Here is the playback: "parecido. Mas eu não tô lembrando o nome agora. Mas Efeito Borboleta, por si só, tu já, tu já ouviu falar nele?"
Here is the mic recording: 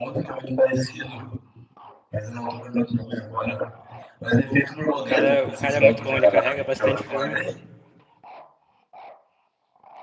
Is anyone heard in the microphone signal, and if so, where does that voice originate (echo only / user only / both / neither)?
both